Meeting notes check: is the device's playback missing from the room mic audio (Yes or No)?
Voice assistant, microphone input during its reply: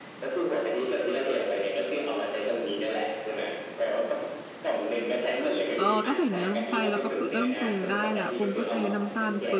No